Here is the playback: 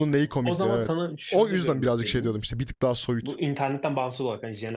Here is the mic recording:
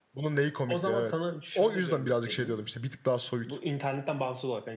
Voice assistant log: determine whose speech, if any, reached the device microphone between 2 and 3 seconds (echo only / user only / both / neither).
echo only